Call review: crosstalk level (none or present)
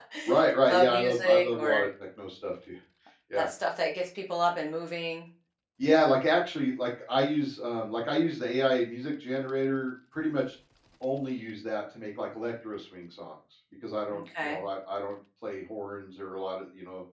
present